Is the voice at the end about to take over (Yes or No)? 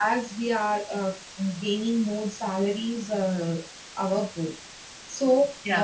No